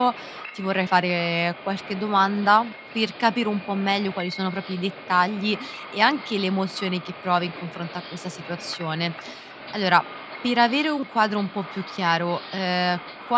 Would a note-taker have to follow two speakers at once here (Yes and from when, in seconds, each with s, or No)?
No